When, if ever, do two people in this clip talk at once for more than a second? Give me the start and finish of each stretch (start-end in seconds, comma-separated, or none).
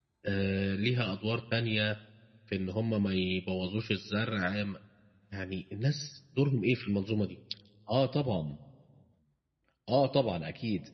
none